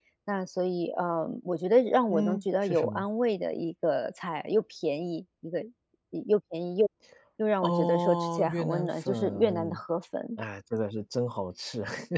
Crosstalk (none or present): present